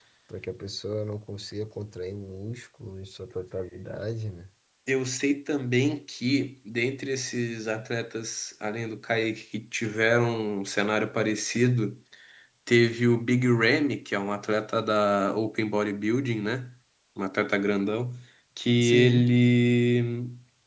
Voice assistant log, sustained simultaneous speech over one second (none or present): none